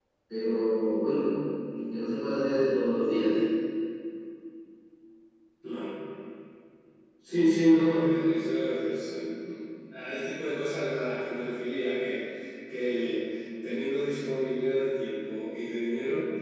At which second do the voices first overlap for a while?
none

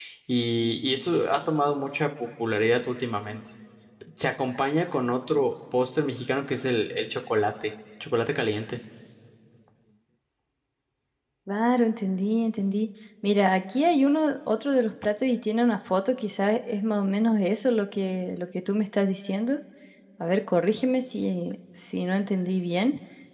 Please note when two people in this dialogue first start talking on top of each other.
none

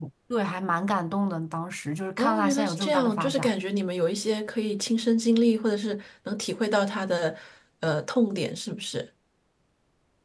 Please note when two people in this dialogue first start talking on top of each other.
2.2 s

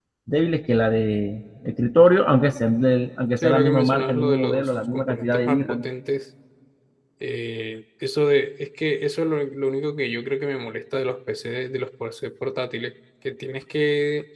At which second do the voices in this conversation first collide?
3.4 s

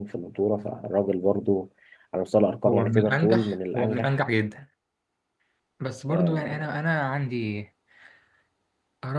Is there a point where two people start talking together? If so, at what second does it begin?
2.7 s

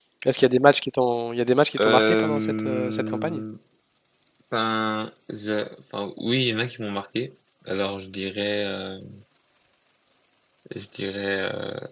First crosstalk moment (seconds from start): 1.8 s

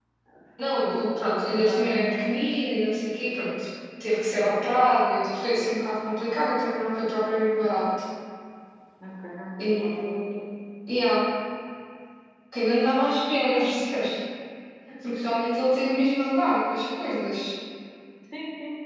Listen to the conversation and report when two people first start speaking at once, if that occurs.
0.6 s

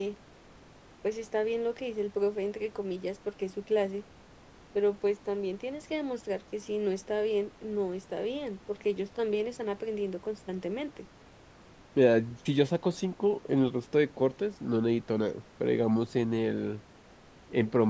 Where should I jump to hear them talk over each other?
none

